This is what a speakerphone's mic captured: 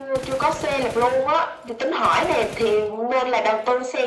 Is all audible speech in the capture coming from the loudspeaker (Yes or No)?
Yes